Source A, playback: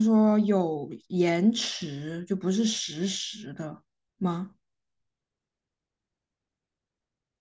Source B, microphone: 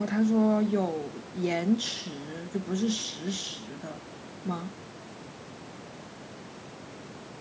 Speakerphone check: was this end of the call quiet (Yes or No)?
Yes